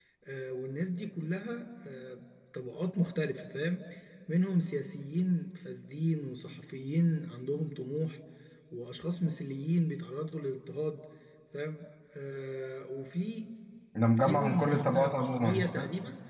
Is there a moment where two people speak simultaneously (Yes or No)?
Yes